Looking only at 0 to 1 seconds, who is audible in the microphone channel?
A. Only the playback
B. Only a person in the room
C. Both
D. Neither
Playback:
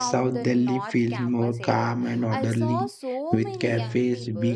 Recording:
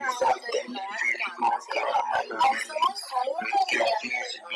A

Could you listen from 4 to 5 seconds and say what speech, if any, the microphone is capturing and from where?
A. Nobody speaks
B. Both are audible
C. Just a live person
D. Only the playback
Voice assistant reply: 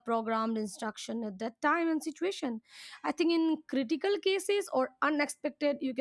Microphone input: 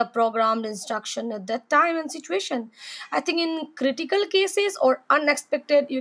D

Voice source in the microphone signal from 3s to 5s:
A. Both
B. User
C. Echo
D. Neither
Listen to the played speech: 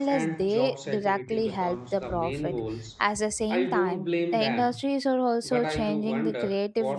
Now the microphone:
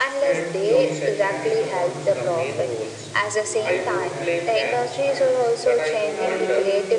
A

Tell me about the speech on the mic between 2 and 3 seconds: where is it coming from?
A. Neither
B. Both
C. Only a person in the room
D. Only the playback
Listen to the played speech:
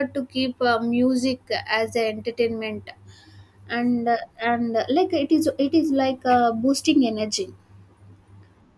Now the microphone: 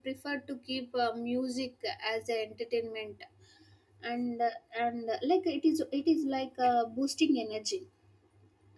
D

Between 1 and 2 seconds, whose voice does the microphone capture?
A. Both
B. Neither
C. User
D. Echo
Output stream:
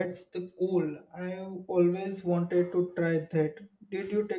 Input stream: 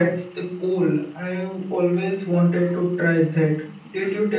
D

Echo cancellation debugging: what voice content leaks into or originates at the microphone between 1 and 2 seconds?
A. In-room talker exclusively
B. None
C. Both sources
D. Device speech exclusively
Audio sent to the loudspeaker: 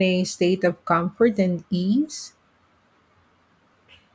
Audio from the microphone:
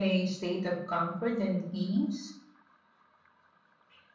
D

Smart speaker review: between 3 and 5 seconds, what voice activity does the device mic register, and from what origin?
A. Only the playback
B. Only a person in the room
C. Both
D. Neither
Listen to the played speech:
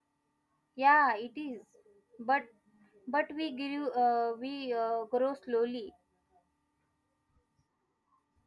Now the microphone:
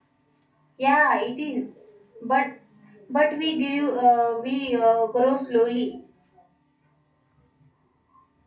A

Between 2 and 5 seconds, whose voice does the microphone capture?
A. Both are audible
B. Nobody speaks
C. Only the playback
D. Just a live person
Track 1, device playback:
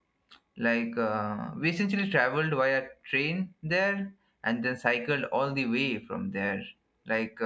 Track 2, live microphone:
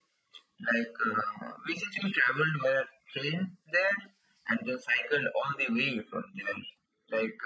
C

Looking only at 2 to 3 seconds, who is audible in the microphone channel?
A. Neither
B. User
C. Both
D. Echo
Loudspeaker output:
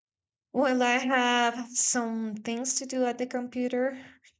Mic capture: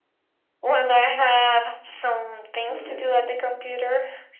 C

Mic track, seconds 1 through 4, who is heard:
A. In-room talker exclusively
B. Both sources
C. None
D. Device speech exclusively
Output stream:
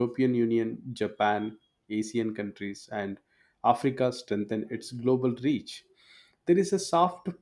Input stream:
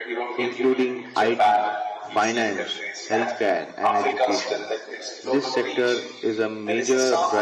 B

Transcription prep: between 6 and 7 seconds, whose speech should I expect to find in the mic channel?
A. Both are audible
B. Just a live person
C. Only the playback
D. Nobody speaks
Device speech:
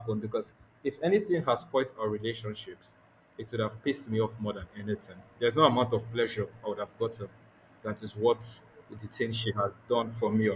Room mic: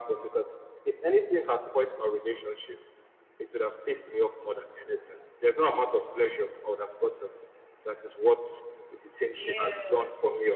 C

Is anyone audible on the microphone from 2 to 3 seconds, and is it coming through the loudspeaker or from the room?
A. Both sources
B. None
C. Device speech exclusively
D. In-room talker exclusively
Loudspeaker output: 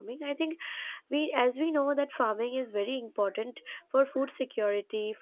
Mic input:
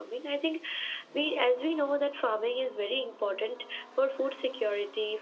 C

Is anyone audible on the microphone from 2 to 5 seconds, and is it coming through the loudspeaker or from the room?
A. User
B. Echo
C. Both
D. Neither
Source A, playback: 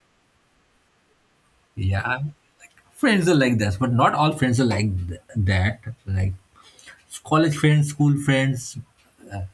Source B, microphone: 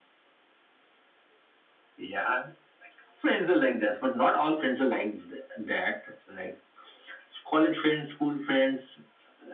B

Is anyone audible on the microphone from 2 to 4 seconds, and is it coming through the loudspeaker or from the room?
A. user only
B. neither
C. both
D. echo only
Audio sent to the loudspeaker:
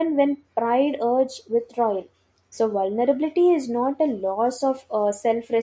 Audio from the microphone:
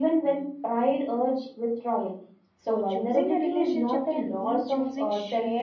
C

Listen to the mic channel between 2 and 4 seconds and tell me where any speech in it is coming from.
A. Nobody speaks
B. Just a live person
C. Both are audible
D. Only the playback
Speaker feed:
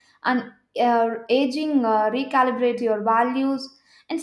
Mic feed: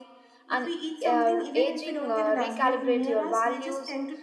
C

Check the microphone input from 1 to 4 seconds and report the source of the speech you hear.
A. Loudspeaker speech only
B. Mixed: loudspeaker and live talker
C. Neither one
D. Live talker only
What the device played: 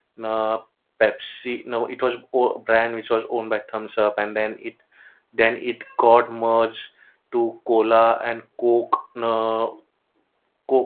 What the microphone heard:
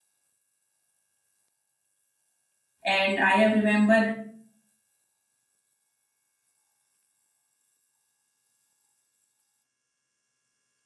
D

